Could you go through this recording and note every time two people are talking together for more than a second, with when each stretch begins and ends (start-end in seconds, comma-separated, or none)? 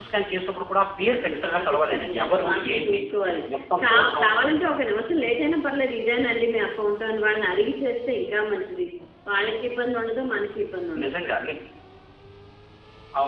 1.1-3.0